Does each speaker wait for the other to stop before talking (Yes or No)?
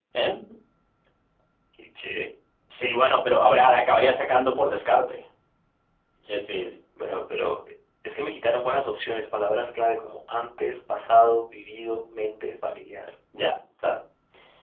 Yes